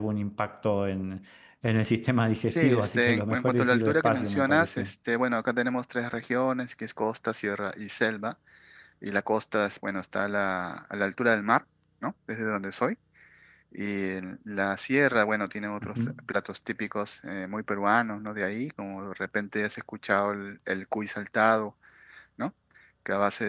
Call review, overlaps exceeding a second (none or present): present